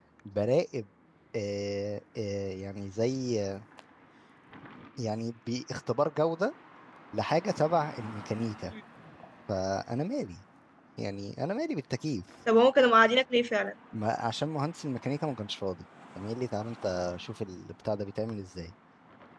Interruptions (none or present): none